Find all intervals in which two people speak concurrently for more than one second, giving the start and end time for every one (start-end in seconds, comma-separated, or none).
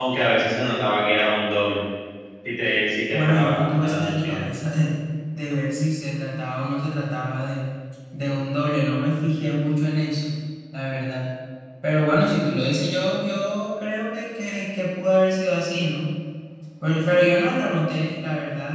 3.1-4.4